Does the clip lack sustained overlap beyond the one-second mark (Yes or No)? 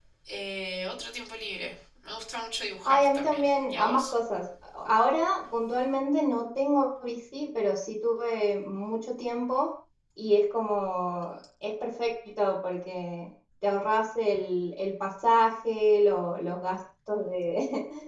No